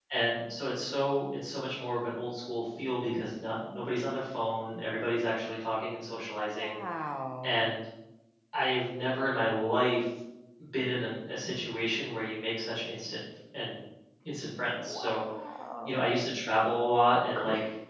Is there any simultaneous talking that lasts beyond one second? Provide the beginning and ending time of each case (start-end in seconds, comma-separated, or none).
none